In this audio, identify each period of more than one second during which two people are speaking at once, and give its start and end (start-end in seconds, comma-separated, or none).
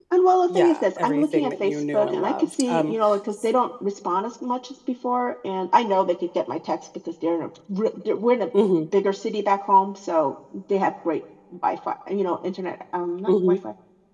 0.6-2.9